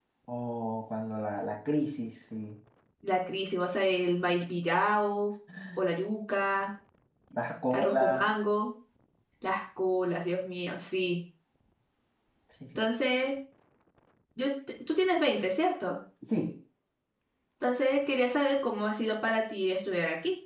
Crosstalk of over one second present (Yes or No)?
No